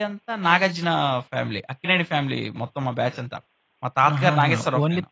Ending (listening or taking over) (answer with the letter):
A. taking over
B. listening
A